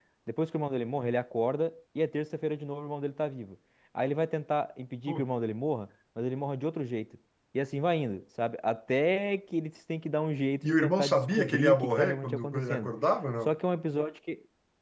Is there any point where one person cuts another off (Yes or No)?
Yes